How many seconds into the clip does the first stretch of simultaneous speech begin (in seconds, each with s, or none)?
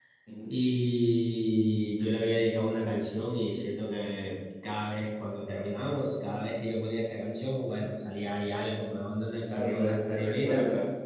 9.5 s